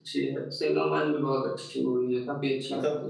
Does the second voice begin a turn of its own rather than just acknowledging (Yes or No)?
Yes